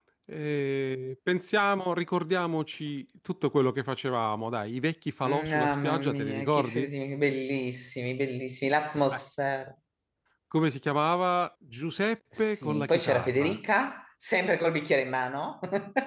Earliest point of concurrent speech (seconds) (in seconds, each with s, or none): 5.2 s